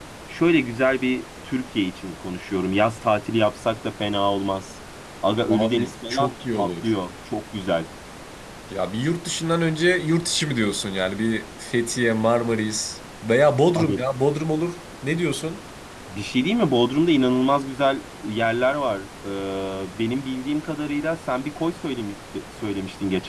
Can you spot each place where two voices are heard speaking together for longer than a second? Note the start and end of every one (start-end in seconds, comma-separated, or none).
5.5-6.9